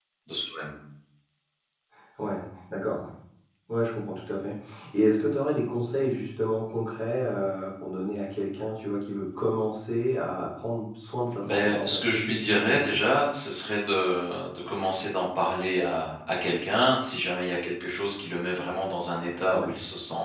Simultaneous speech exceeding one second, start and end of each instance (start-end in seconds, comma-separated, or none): 11.4-12.9